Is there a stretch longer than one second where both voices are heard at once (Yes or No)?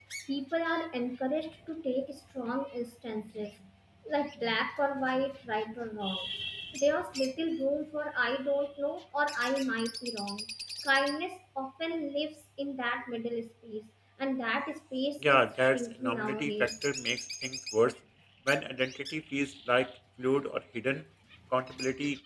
Yes